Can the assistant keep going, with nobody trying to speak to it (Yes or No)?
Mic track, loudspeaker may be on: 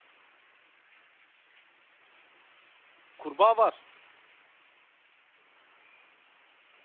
No